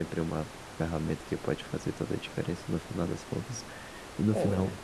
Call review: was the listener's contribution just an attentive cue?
Yes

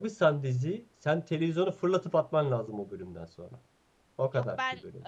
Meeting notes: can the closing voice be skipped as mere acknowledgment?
No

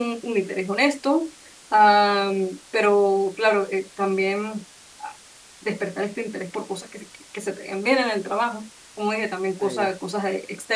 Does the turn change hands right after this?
No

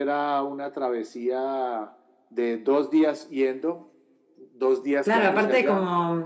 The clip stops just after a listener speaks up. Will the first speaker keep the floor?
No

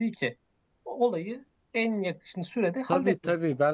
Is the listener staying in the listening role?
No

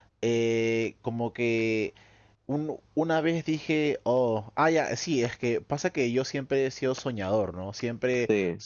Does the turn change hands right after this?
No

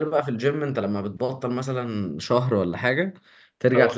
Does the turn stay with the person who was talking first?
Yes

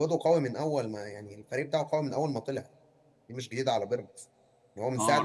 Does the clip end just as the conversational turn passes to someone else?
Yes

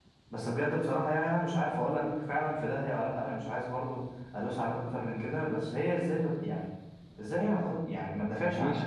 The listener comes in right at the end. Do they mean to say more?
Yes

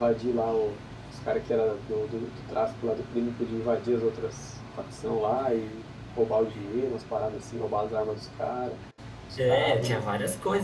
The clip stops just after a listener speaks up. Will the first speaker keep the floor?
No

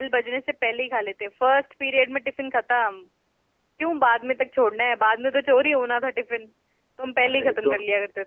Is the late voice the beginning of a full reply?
Yes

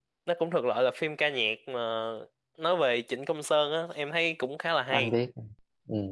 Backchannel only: No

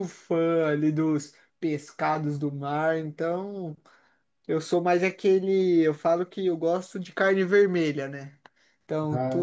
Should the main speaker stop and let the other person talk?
No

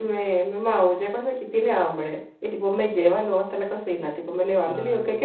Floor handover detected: No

